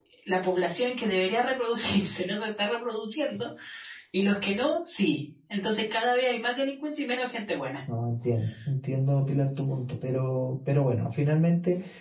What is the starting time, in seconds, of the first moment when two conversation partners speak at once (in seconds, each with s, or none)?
none